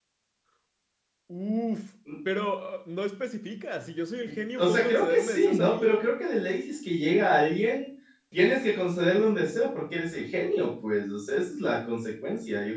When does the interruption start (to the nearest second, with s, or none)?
5 s